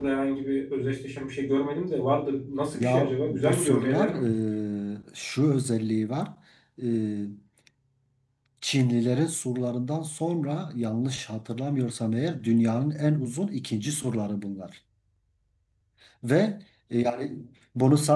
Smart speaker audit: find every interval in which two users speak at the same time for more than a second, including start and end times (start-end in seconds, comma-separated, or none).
2.8-4.1